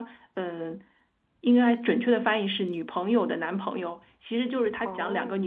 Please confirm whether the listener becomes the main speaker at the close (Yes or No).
No